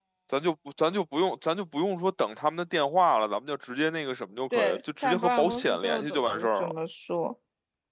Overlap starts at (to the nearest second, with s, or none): 5 s